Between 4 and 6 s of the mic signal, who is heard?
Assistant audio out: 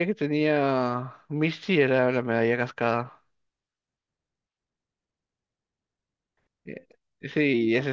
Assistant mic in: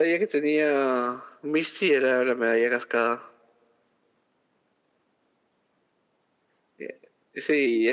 neither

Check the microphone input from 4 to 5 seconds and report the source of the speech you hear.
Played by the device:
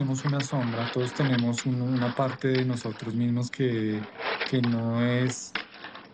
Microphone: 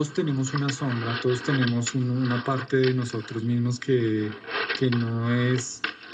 echo only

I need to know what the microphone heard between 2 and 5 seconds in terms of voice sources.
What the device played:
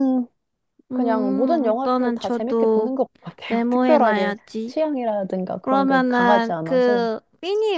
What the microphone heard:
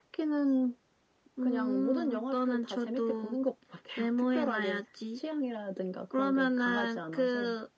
echo only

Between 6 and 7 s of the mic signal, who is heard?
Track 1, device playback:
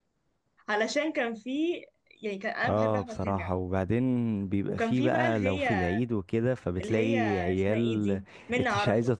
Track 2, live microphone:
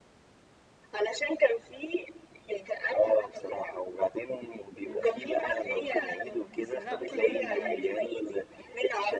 both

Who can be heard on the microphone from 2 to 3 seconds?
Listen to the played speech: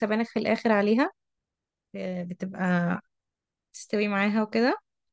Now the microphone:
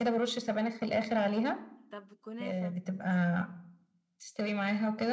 both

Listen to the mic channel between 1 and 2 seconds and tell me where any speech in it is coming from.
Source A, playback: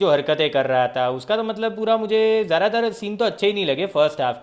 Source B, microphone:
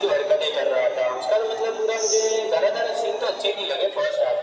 echo only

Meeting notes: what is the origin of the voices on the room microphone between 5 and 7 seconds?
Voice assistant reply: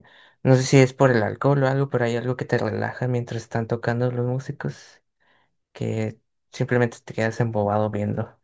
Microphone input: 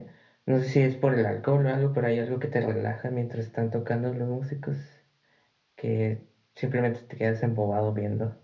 echo only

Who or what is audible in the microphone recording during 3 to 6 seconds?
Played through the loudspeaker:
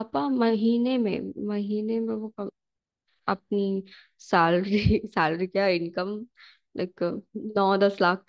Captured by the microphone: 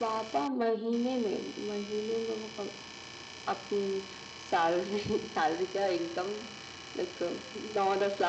echo only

